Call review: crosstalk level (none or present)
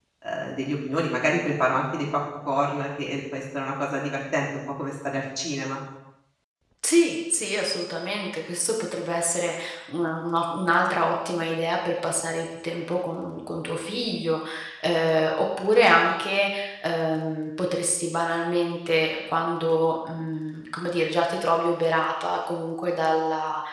none